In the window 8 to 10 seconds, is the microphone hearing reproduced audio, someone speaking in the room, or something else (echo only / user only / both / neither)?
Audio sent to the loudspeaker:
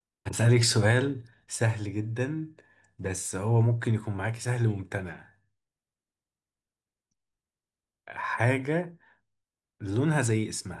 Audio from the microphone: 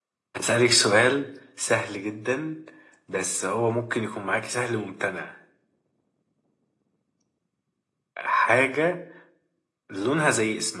echo only